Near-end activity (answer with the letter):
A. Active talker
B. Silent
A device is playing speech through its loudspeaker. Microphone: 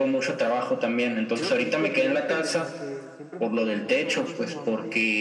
A